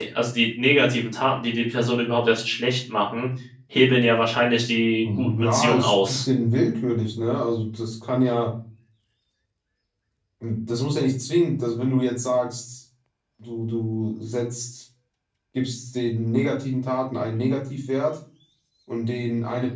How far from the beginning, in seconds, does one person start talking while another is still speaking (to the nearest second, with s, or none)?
5 s